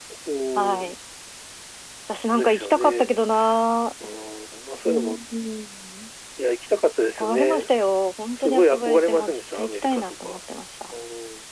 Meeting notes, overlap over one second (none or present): present